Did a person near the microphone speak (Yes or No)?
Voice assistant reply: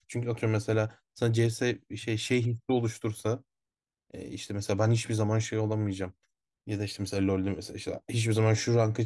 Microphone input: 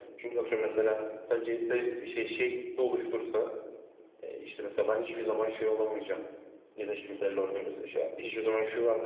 No